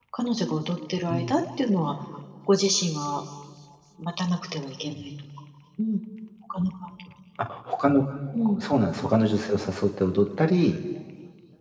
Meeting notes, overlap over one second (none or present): none